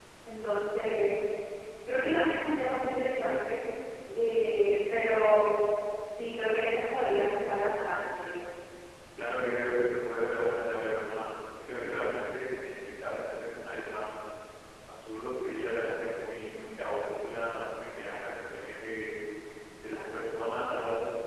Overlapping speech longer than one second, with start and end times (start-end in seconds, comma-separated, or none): none